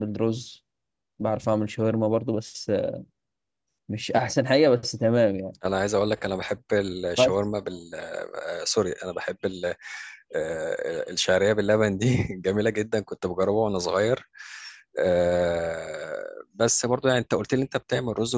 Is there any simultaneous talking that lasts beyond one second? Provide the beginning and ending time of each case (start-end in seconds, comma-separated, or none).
none